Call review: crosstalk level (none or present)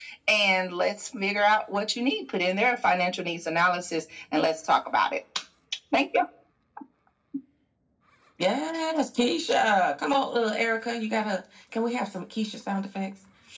none